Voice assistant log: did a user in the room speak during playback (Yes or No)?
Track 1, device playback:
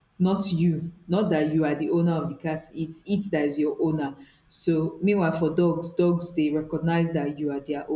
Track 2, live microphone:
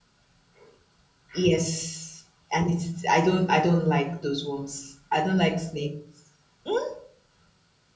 Yes